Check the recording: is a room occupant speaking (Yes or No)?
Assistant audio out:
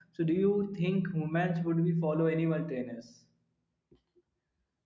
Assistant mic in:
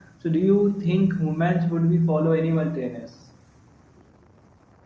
No